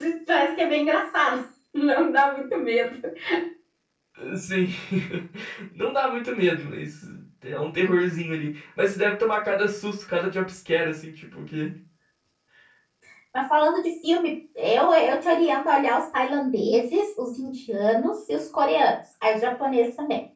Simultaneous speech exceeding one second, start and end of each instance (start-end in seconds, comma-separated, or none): none